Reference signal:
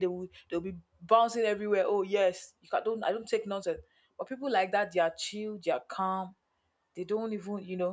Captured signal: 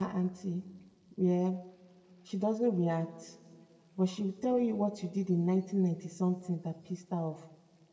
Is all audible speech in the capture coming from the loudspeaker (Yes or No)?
No